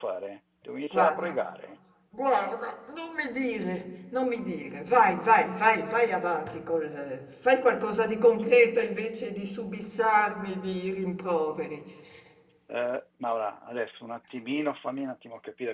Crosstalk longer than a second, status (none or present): none